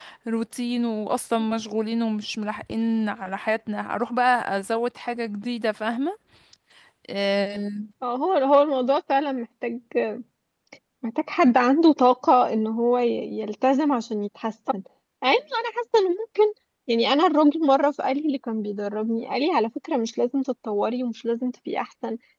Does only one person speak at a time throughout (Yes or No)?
Yes